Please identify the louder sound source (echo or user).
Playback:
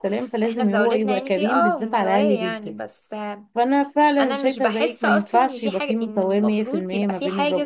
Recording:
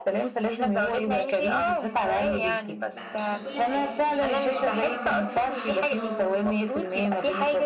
echo